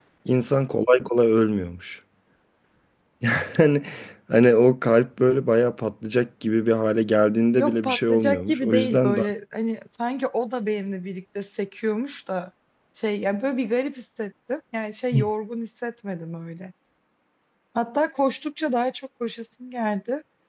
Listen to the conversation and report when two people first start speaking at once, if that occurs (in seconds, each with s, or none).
7.5 s